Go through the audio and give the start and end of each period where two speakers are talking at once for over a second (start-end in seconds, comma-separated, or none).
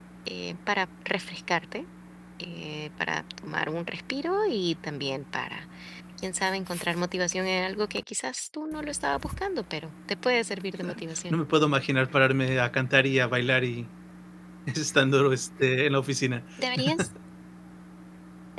none